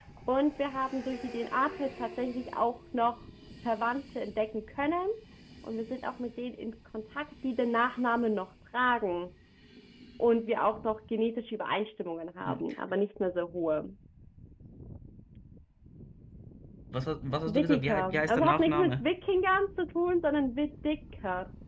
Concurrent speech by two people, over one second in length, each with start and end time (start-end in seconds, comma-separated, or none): 17.5-19.1